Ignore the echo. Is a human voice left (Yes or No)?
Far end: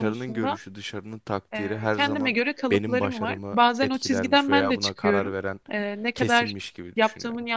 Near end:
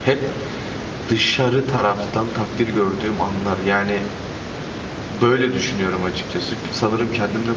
Yes